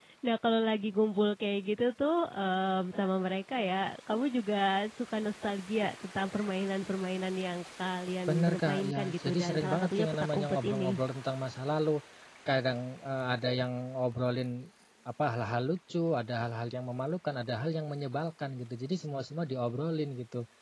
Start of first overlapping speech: 8 s

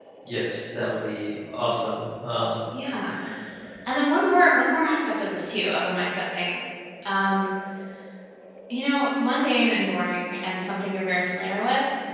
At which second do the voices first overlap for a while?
none

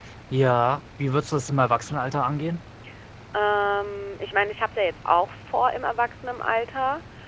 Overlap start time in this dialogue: none

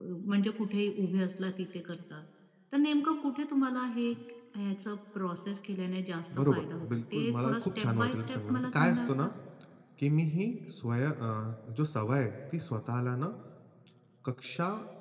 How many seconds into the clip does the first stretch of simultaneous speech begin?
6 s

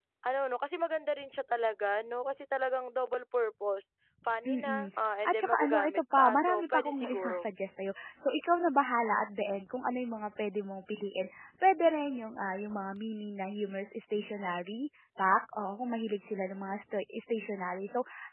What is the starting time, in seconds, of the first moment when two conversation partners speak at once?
4 s

